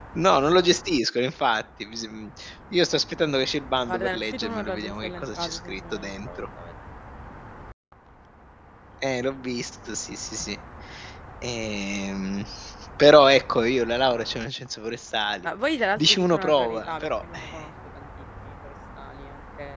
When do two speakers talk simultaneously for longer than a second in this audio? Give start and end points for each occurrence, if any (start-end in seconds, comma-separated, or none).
3.9-6.4, 16.0-17.6